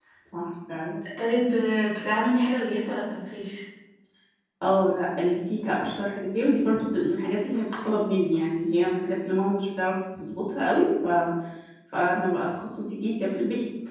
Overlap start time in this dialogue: none

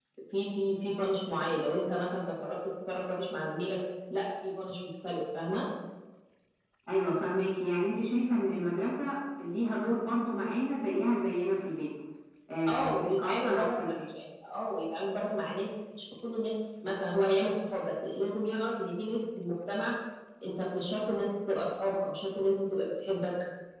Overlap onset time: 12.7 s

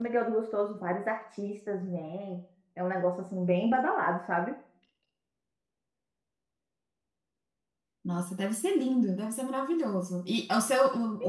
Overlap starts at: none

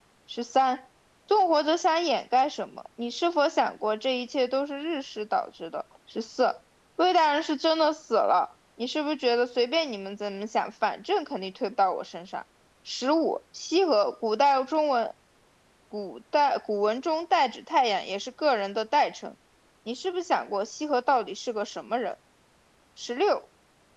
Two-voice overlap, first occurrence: none

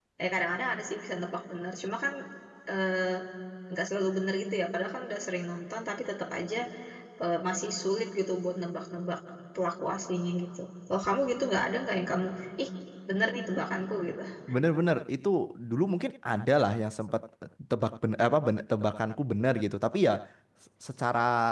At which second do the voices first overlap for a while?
none

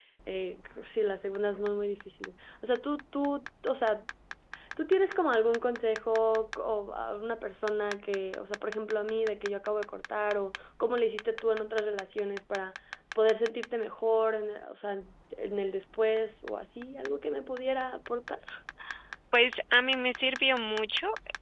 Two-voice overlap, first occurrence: none

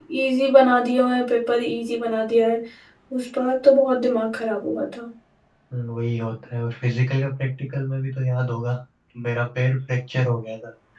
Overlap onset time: none

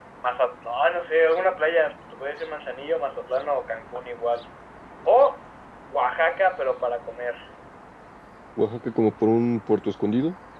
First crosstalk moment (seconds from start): none

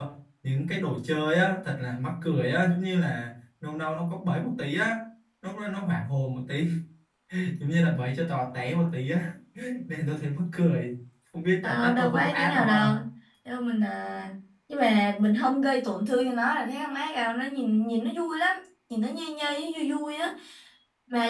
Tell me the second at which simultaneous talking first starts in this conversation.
11.6 s

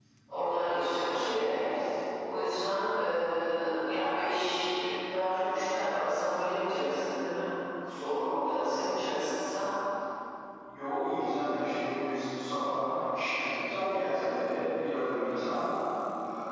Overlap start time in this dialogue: none

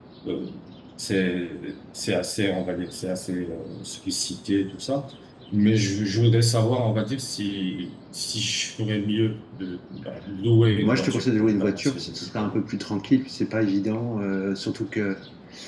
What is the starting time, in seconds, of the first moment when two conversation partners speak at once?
10.8 s

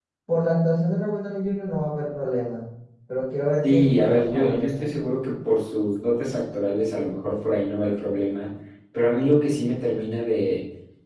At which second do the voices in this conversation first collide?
3.6 s

